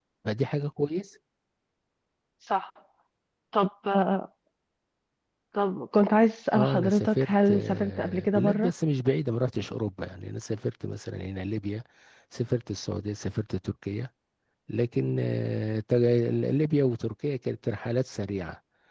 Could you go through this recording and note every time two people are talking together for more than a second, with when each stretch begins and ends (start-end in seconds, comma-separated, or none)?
6.5-8.7